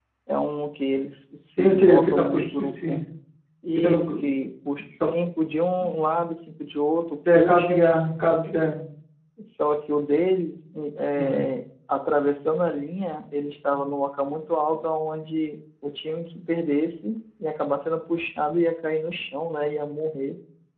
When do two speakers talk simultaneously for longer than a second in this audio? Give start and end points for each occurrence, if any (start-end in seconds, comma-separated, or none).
1.6-3.0